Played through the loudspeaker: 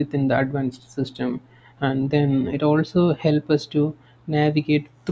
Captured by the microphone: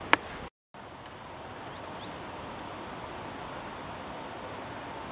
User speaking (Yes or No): No